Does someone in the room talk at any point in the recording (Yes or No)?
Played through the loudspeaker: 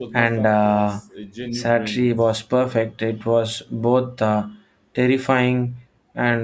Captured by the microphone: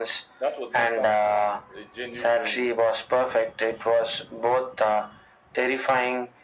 No